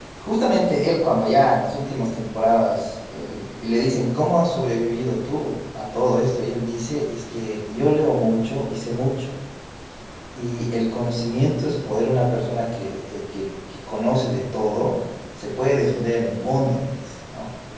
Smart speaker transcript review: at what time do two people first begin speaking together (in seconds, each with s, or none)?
none